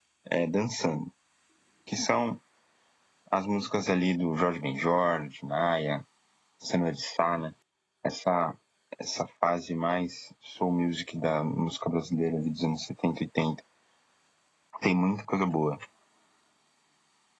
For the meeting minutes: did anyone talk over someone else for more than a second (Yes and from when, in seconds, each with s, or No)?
No